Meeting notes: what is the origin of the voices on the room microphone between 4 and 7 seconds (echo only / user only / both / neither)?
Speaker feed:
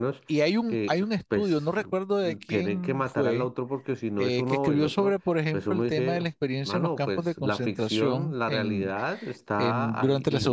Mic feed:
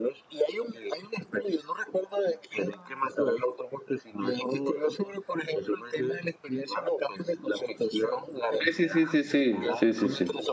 echo only